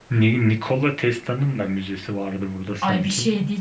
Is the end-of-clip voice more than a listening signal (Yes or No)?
Yes